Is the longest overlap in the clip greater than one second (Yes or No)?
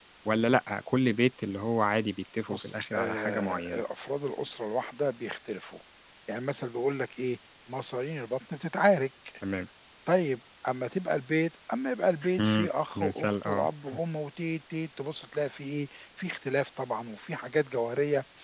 Yes